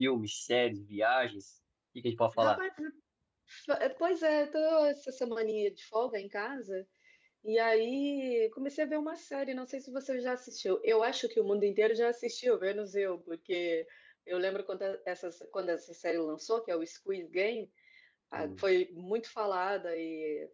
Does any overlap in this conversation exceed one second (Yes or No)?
No